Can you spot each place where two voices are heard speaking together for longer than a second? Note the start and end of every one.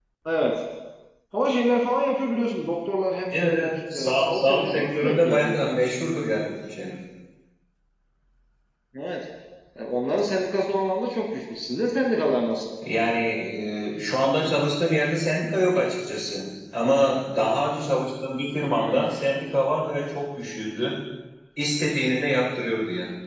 3.3-5.6

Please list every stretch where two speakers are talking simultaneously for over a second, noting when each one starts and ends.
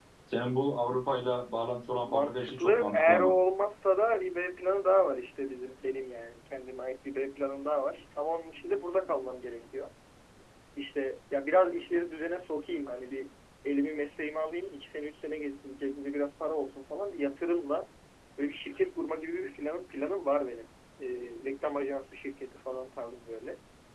2.0-3.3

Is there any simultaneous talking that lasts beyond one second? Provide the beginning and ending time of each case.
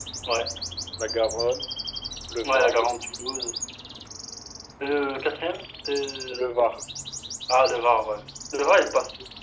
none

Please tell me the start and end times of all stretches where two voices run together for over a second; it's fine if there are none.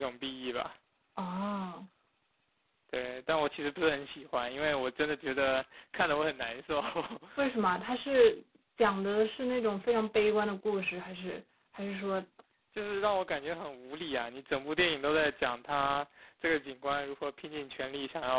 none

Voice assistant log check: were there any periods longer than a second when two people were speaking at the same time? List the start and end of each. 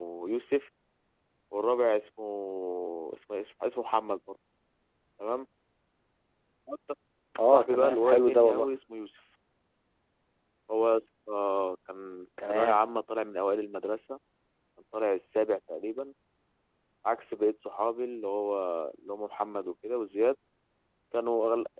7.4-8.7

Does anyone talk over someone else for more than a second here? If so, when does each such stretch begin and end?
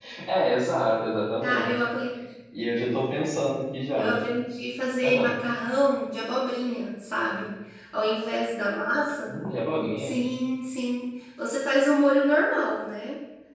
none

